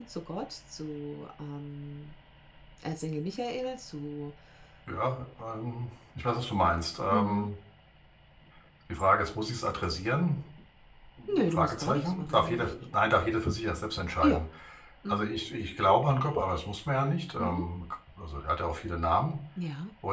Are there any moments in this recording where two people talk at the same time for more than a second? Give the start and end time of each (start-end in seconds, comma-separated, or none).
11.4-12.7